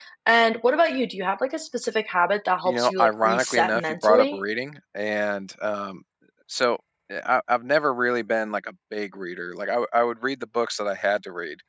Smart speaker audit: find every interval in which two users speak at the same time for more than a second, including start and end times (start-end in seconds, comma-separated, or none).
2.6-4.4